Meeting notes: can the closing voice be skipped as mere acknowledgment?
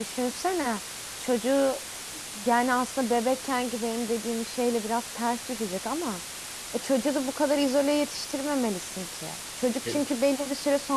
Yes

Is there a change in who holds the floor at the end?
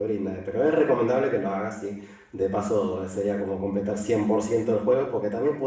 No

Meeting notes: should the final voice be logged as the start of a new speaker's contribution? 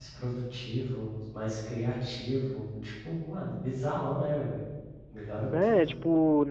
Yes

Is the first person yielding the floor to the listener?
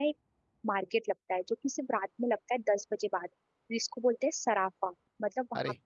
No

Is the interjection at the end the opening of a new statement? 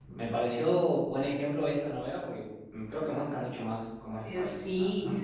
Yes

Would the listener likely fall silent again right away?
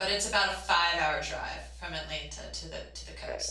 No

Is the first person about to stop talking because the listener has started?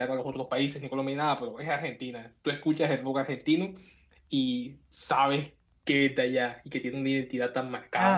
Yes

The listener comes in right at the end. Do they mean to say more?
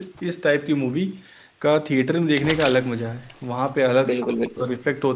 No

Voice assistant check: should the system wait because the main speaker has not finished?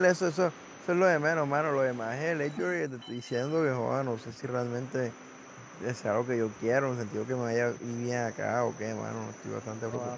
No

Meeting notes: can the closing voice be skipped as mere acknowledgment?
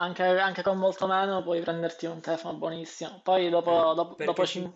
Yes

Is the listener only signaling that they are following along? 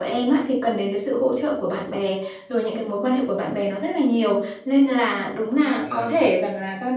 Yes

